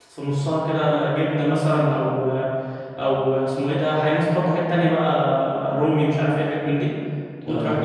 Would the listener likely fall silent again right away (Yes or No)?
Yes